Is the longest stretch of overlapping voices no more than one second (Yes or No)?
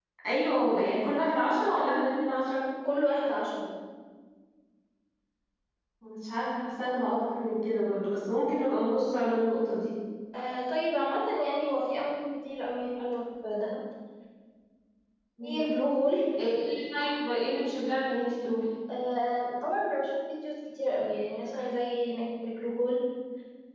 Yes